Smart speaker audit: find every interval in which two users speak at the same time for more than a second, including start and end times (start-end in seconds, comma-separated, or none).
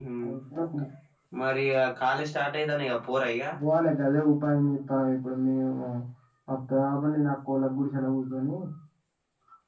none